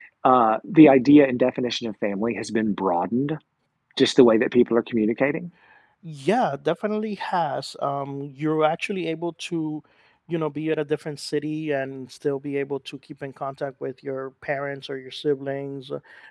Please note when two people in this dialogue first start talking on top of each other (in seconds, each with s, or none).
none